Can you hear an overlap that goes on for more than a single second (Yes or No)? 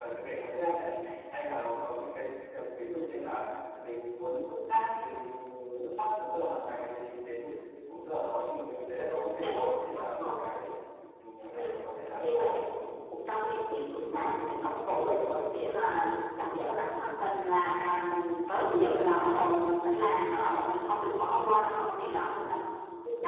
Yes